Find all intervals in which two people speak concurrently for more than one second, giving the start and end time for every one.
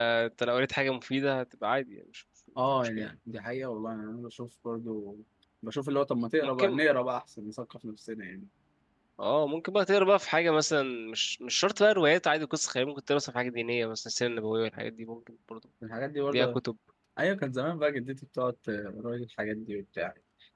none

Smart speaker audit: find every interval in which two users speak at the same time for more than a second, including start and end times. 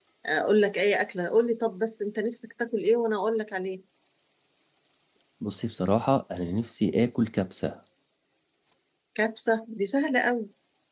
none

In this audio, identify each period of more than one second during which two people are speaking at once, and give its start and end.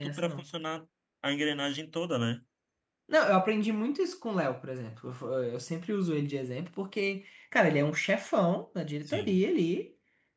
none

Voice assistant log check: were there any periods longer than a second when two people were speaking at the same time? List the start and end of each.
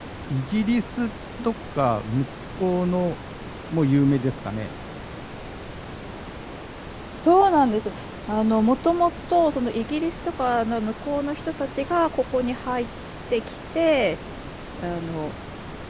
none

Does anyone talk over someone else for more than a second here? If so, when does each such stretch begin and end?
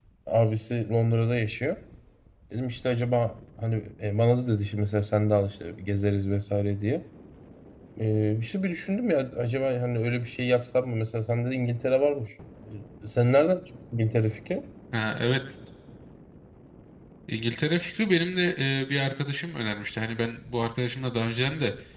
none

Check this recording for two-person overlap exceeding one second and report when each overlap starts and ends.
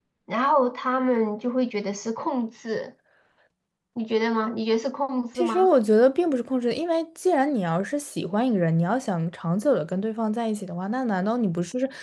none

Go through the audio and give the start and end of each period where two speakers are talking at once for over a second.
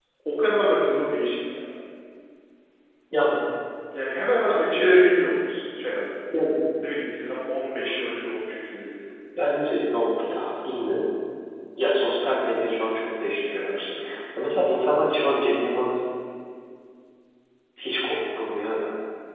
none

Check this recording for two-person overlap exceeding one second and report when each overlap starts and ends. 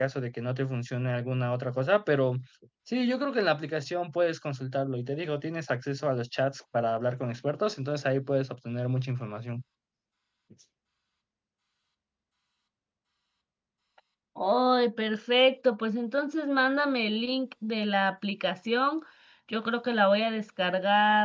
none

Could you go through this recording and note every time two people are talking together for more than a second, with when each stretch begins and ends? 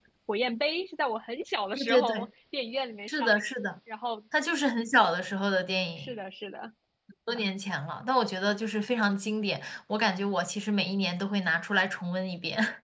none

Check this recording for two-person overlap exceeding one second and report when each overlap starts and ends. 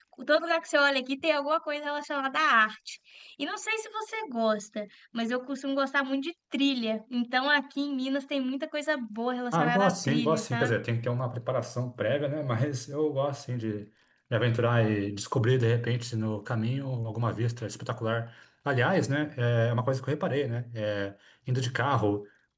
9.5-10.7

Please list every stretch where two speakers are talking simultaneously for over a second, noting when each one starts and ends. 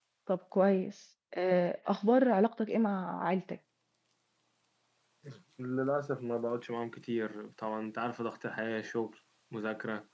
none

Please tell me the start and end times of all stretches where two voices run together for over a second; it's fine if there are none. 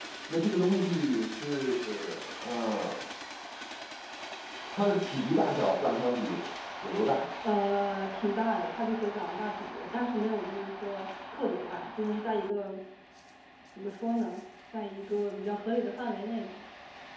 none

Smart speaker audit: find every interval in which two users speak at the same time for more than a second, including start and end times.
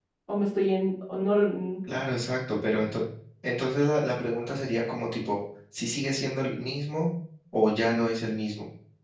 none

